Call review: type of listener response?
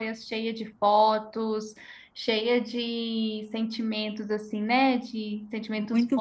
taking over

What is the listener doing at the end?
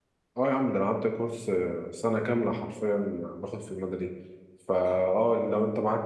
listening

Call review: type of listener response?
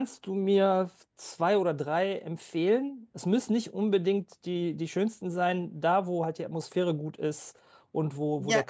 listening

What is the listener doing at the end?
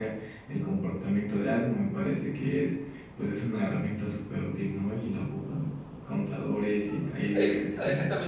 taking over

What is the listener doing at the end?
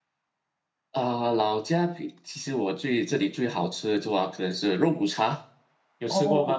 taking over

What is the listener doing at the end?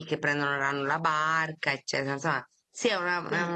listening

